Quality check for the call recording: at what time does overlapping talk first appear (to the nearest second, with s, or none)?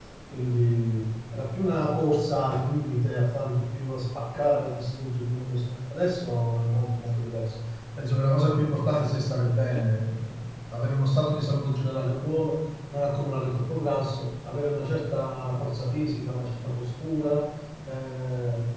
none